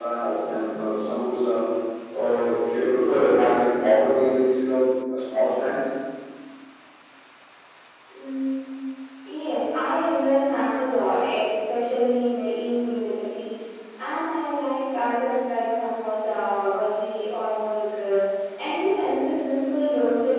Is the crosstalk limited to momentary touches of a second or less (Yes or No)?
Yes